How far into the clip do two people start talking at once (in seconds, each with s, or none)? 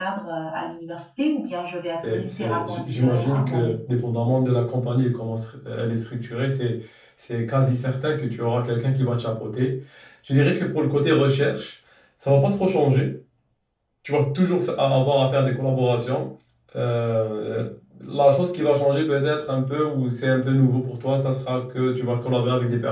2.0 s